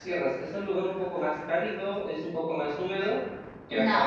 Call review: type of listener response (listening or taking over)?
taking over